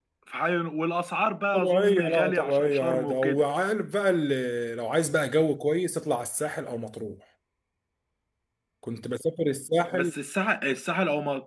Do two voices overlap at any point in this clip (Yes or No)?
Yes